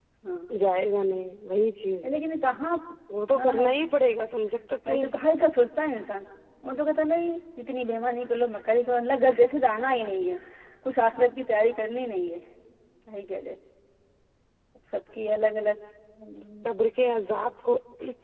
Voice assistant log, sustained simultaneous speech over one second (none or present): none